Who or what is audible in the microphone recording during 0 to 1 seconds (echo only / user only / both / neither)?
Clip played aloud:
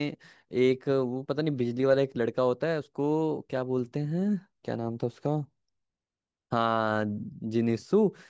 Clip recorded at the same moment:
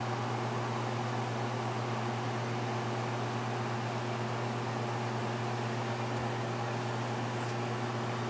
neither